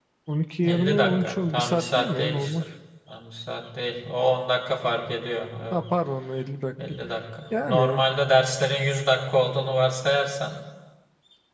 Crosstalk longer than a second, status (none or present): present